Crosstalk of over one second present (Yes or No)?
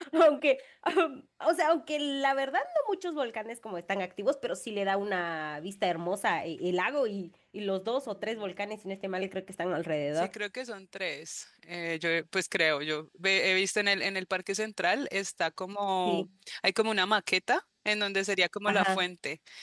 No